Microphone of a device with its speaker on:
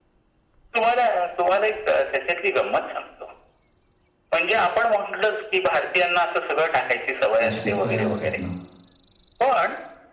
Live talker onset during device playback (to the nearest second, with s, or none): 7 s